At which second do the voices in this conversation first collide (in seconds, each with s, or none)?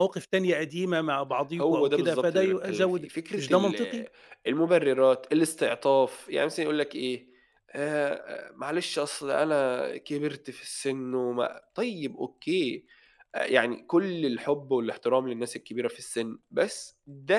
1.6 s